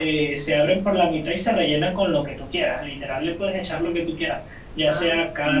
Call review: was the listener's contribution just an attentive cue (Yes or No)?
Yes